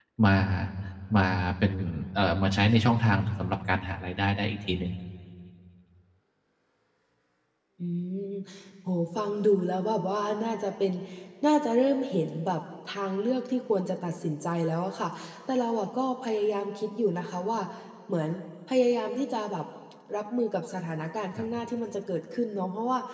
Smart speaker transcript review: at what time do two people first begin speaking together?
none

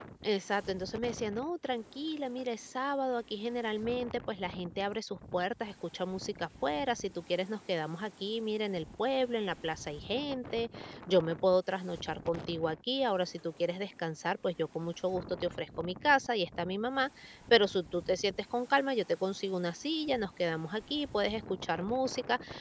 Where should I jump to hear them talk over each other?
none

